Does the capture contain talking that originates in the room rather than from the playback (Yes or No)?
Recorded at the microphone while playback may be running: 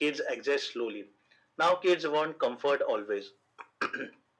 No